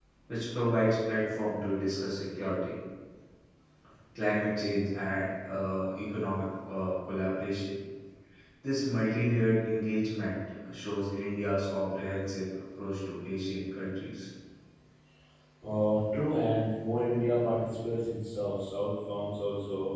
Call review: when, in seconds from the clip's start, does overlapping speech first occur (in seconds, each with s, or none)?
none